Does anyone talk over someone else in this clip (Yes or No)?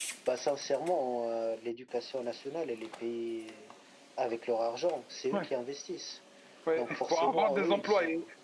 Yes